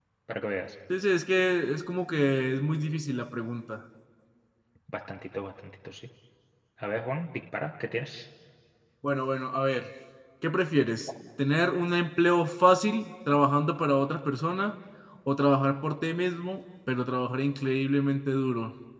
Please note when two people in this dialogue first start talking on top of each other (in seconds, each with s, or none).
none